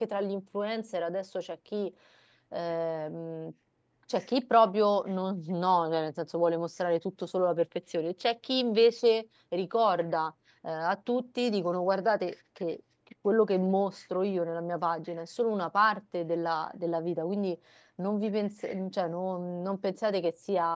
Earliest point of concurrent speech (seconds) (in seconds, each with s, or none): none